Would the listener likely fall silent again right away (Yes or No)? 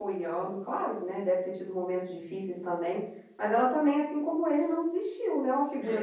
No